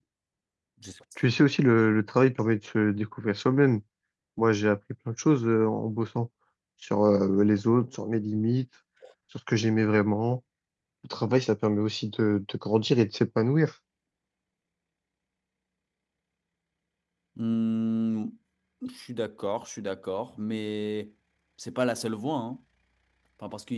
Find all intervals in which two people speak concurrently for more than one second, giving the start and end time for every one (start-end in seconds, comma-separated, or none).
none